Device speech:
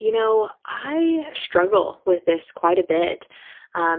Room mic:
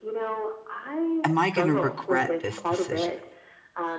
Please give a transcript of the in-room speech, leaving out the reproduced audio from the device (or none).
"Am I gonna regret this decision?"